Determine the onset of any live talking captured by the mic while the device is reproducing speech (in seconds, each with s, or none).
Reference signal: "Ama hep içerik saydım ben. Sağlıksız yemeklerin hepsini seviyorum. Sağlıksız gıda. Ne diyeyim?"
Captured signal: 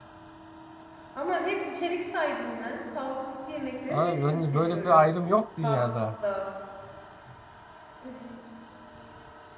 3.9 s